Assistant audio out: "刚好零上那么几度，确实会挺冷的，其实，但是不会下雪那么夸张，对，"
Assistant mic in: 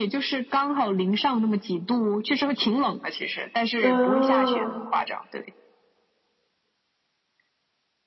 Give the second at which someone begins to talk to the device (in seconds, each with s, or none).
3.8 s